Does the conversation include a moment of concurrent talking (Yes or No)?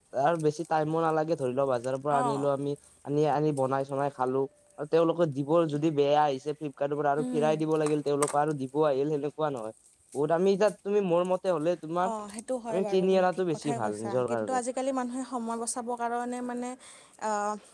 Yes